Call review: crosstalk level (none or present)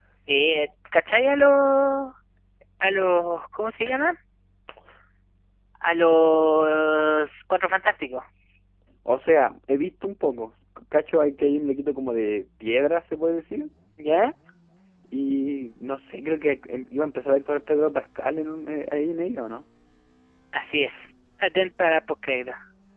none